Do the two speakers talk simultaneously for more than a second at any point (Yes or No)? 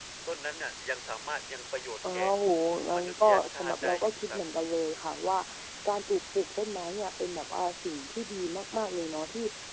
Yes